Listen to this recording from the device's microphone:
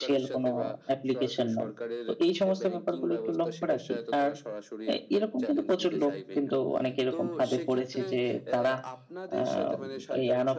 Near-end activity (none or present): present